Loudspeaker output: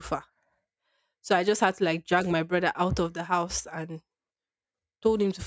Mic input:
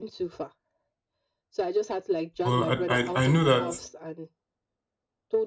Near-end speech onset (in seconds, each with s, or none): 2.4 s